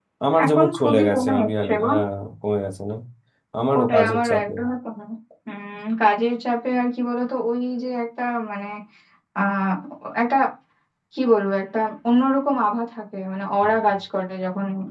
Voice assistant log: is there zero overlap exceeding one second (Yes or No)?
No